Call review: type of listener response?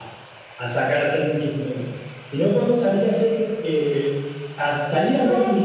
taking over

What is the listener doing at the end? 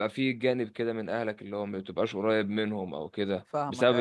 listening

